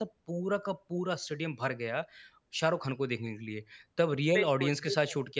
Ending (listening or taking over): listening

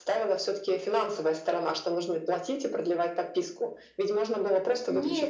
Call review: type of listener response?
listening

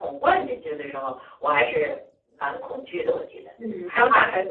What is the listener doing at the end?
taking over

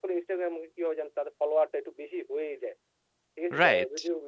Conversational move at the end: taking over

